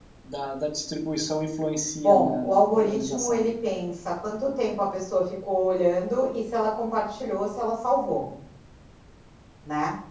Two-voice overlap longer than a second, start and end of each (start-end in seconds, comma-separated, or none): 2.0-3.4